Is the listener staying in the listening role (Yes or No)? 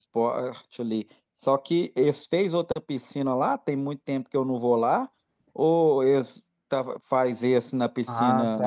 No